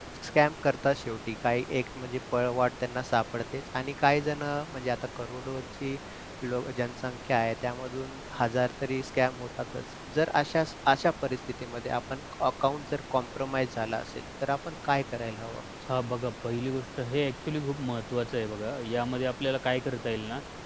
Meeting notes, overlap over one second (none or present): none